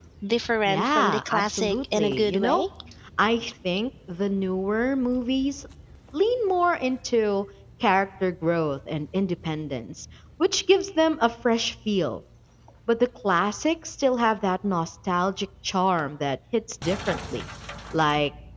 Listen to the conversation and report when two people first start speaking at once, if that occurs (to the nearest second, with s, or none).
1 s